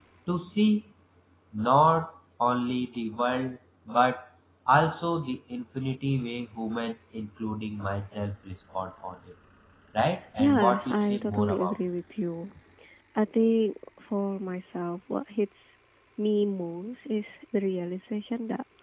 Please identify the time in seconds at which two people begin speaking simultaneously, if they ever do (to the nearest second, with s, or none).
10 s